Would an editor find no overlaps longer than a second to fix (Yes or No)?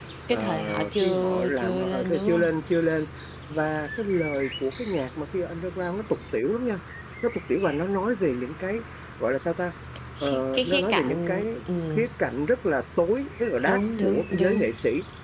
No